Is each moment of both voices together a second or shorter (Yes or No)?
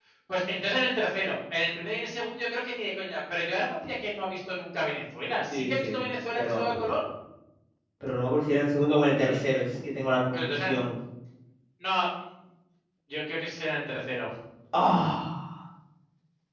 Yes